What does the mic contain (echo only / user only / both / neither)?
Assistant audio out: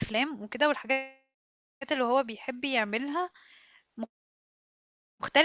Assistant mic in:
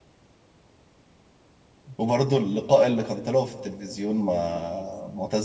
user only